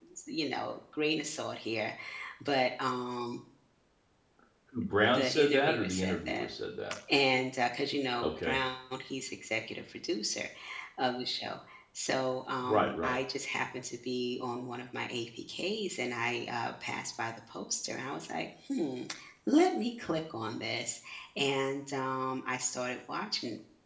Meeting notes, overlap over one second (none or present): present